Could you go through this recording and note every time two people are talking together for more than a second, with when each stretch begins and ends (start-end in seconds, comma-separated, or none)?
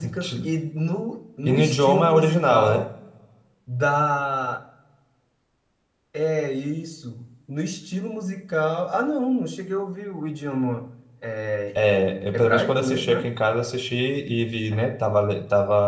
1.4-2.9, 11.8-13.3